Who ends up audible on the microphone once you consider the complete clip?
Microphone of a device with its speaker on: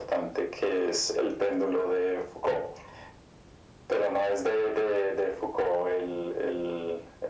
echo only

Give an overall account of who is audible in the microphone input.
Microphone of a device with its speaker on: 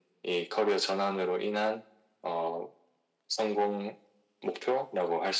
echo only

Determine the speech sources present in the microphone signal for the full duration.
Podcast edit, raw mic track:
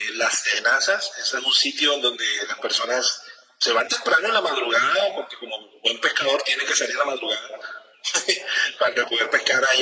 echo only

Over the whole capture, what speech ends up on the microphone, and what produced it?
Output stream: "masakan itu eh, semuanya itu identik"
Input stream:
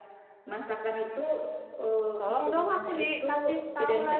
both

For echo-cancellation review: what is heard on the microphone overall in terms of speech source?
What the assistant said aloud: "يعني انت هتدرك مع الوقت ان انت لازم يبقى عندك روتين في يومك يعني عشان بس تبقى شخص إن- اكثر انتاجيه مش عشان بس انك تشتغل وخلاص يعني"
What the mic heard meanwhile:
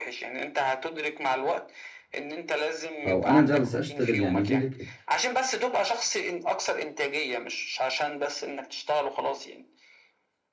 both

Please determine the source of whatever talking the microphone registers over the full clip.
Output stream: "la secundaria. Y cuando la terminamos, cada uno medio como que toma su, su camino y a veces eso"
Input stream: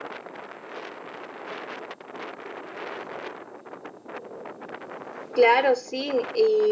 user only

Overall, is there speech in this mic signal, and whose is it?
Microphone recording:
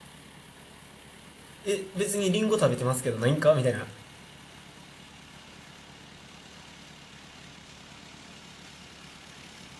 user only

